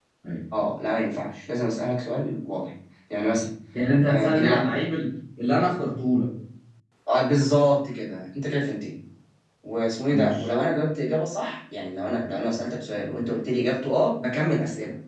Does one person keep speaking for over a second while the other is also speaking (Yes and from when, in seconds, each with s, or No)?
No